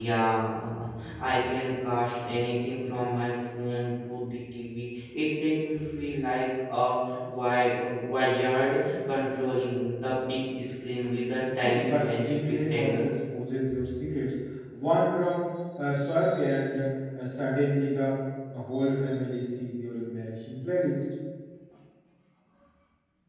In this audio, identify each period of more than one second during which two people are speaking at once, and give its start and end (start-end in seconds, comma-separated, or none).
11.6-13.1